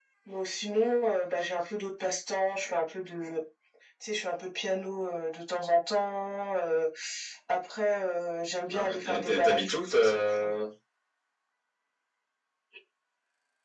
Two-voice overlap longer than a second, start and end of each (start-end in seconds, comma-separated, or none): 8.7-10.5